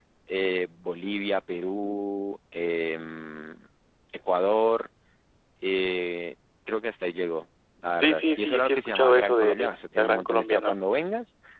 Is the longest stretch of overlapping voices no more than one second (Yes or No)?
No